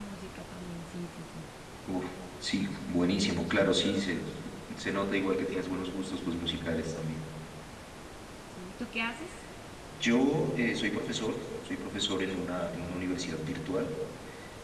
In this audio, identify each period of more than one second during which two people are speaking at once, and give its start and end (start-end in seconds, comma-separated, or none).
none